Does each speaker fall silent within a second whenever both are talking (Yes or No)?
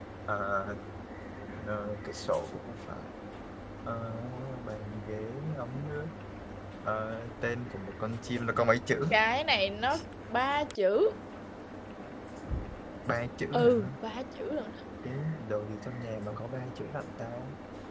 Yes